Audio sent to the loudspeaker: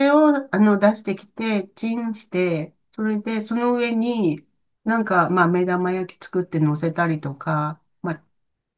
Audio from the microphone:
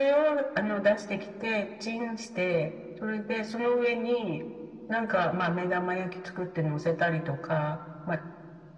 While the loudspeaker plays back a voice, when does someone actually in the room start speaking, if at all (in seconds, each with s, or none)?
none